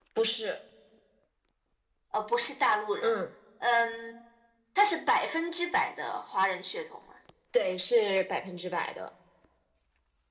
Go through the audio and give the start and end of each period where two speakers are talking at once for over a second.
none

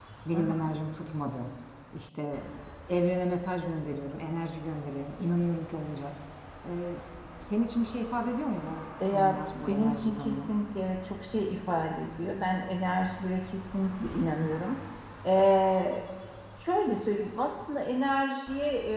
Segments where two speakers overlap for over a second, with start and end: 9.1-10.5

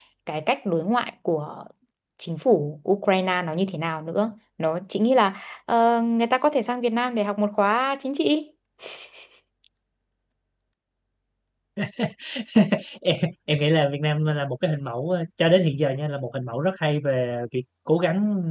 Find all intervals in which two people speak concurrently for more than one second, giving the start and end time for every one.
none

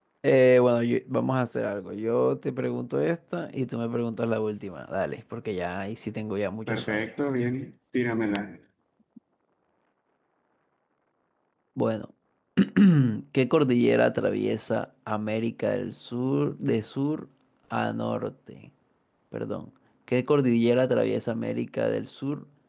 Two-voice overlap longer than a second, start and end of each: none

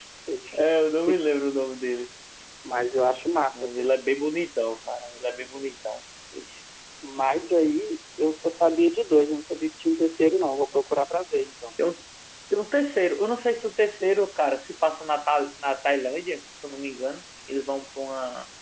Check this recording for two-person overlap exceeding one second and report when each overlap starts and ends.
none

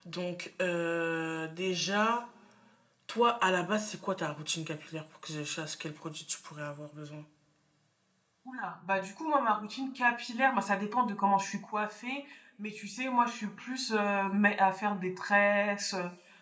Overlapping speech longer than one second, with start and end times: none

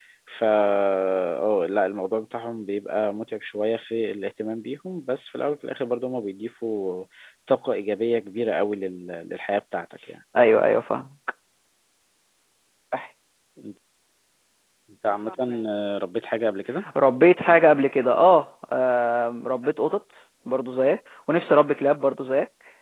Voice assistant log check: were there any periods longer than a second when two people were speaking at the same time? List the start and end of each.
none

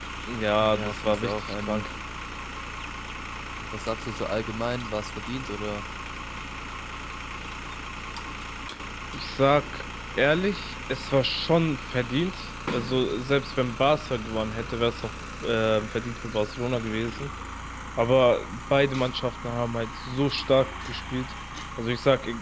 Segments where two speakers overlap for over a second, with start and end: 0.6-1.9

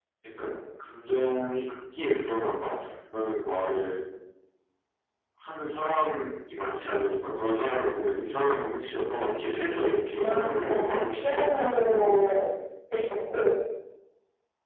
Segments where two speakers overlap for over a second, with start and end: 10.2-12.2

